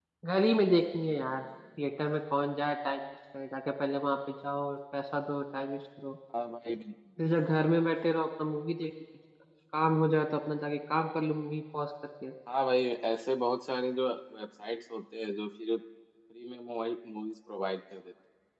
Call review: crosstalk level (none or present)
none